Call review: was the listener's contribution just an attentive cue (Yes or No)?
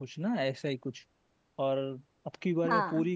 Yes